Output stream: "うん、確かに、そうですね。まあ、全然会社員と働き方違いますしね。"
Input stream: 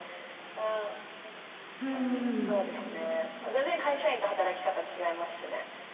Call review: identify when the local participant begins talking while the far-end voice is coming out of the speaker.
1.8 s

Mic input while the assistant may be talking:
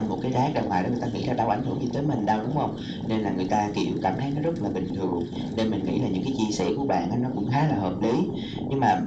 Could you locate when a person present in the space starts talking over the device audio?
none

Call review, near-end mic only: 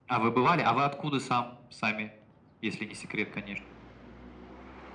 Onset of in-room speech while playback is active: none

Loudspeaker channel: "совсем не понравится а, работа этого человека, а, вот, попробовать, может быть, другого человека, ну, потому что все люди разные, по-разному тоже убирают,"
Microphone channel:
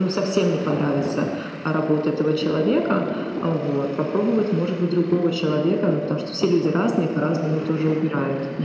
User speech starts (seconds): none

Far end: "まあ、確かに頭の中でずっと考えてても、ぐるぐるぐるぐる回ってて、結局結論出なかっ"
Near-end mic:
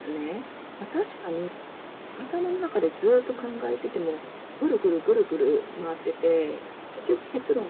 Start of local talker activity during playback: none

